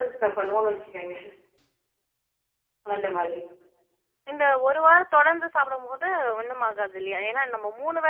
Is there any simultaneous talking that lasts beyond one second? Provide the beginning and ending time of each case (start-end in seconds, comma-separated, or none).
none